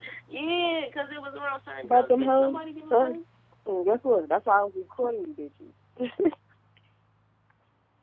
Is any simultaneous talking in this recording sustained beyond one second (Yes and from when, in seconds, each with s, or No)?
Yes, from 1.8 s